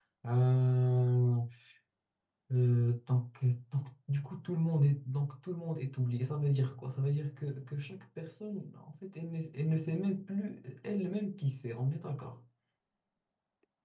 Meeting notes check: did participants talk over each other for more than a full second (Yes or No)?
No